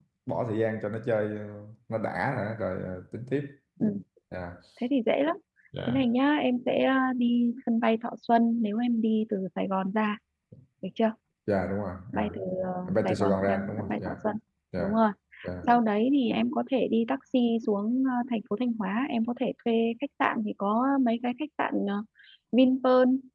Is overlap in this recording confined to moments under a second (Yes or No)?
No